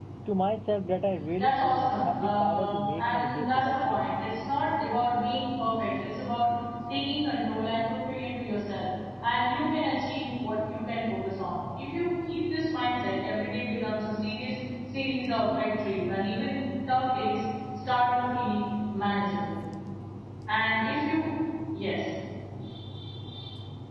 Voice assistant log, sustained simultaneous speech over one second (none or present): present